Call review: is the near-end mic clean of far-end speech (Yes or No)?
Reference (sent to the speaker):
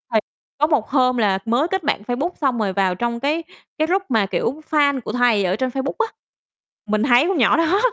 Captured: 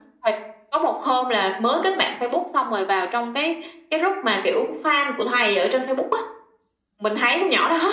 No